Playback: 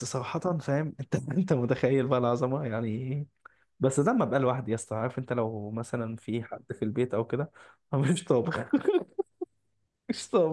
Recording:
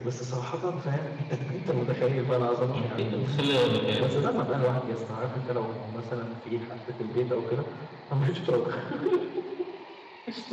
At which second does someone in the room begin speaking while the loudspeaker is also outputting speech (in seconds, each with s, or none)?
2.7 s